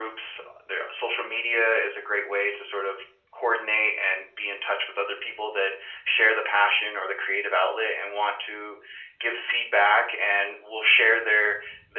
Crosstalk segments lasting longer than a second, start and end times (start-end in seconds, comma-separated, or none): none